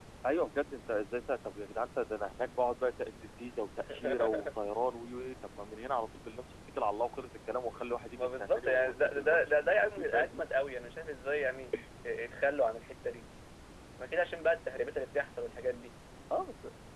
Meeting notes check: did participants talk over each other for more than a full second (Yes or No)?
Yes